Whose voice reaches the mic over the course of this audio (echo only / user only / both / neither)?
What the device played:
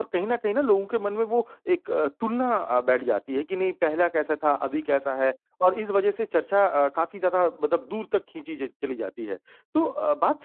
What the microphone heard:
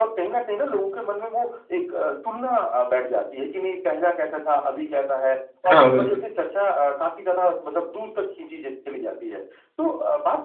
both